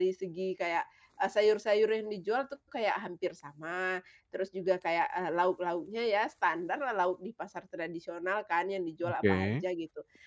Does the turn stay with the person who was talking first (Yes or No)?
Yes